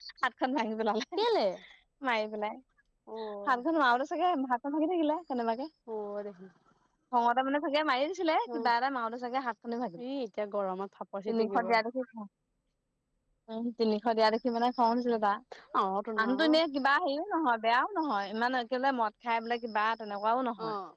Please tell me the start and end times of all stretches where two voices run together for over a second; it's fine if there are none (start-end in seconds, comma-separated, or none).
none